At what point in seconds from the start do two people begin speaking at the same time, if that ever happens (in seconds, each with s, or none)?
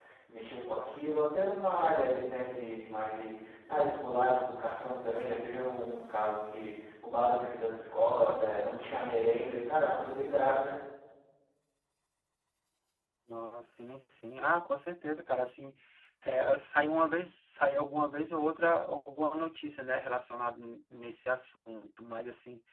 none